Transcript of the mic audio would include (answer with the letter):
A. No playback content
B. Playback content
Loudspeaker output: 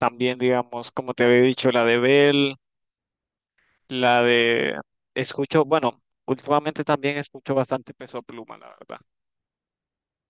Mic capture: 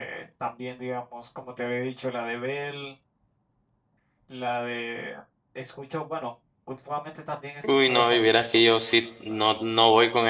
B